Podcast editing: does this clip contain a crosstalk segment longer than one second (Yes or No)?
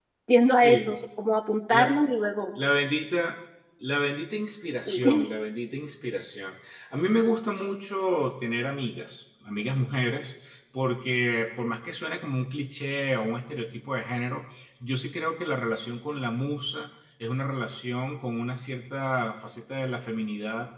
No